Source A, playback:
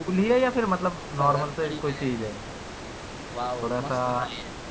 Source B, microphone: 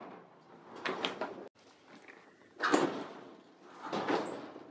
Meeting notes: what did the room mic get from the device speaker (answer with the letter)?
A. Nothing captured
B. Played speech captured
A